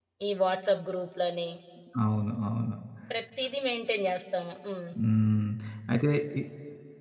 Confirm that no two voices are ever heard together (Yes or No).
Yes